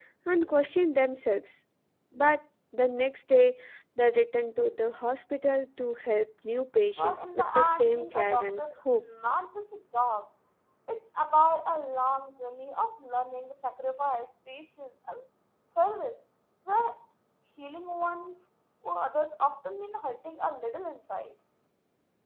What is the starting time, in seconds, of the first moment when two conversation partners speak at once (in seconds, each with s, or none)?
7.0 s